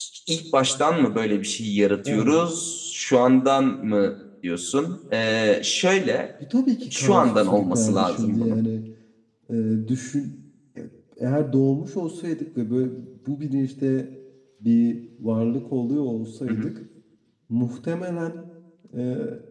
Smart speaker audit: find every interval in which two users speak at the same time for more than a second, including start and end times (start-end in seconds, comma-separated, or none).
6.9-8.6